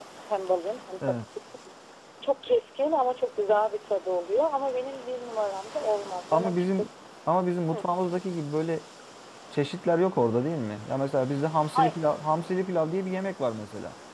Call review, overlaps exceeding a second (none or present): none